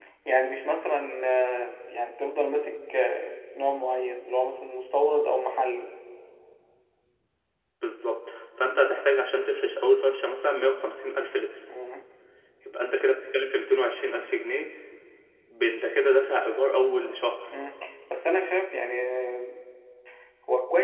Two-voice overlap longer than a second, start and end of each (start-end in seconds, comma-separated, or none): none